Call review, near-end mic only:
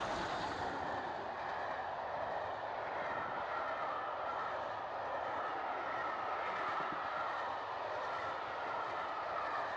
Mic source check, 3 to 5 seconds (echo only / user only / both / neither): neither